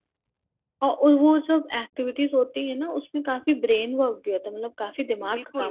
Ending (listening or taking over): taking over